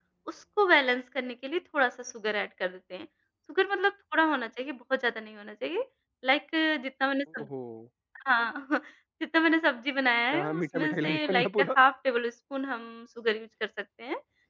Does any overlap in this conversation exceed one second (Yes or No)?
Yes